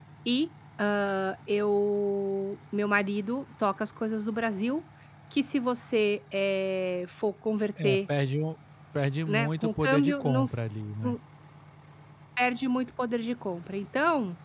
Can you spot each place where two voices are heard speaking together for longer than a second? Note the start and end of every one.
9.3-10.6

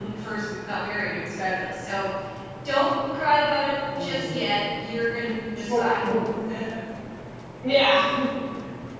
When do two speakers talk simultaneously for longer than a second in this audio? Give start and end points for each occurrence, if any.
none

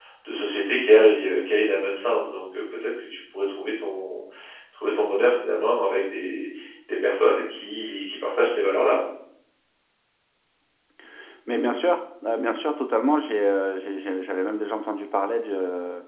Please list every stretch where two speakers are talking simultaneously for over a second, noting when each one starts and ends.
none

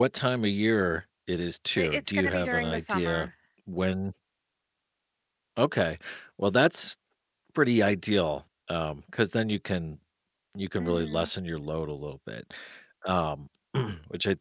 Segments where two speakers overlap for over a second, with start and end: 1.8-3.3

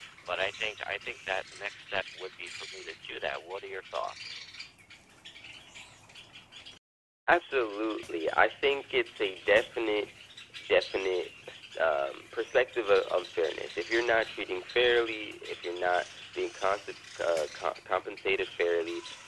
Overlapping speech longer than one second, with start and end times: none

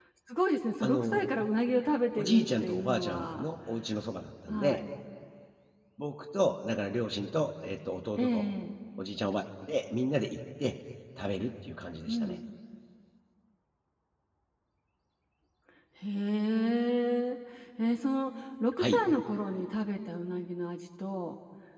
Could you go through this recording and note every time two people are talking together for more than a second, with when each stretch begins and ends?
2.2-3.5

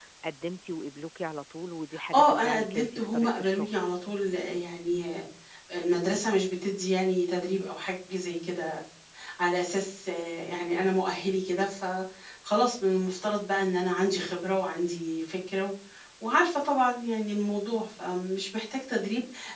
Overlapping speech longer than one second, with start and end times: 2.1-3.8

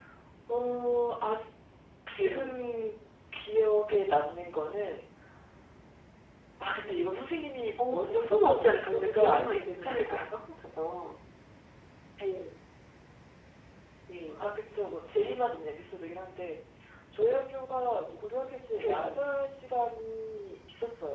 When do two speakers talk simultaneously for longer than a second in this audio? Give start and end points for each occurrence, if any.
7.9-10.2

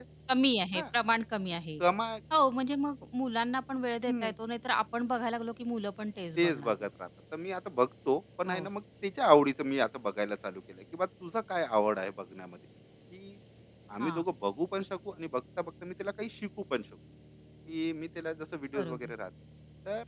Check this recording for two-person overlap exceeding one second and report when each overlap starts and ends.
none

